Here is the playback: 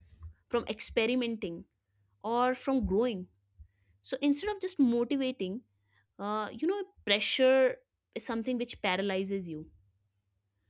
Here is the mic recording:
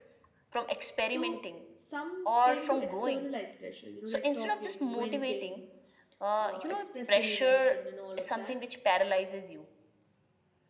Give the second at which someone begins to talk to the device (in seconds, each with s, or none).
1.0 s